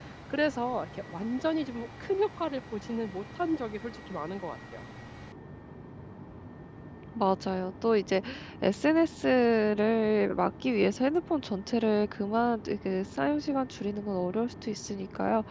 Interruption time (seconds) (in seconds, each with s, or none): none